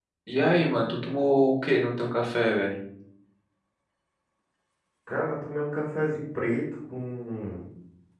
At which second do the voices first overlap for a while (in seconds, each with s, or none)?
none